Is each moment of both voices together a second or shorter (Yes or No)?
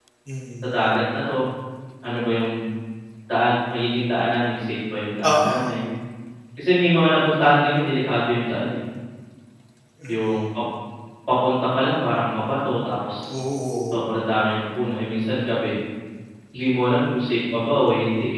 Yes